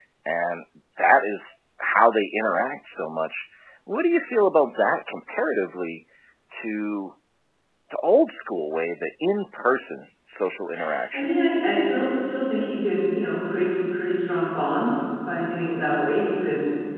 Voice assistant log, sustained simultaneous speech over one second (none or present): none